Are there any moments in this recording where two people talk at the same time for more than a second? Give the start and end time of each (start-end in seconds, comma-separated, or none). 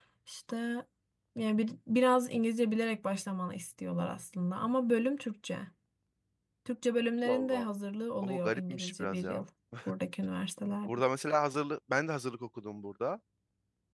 8.2-9.4